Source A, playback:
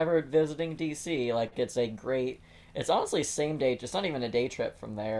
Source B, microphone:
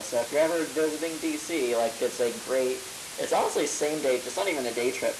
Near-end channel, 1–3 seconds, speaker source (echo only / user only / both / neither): echo only